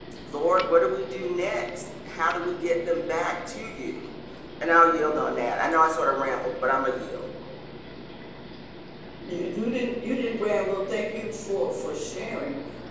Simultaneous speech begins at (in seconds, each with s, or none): none